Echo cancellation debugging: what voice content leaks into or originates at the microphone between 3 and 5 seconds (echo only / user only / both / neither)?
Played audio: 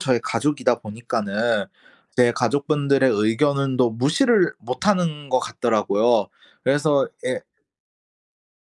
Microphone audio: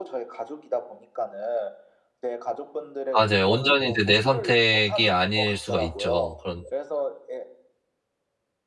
both